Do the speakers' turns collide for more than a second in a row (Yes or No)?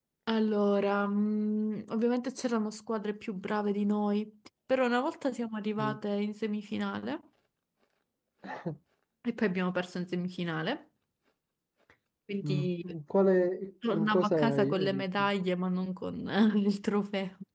Yes